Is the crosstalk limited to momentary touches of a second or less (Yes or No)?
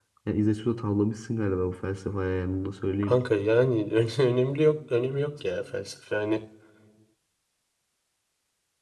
Yes